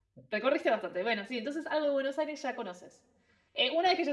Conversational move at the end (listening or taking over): listening